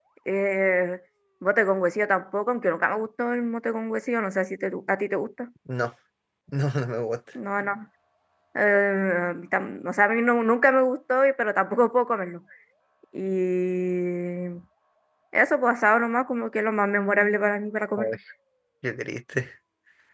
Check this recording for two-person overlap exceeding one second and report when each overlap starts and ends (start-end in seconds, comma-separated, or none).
none